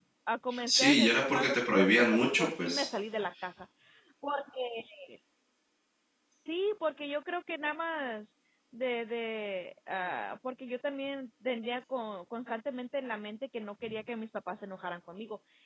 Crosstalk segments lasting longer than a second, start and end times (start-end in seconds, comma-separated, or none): 0.7-2.9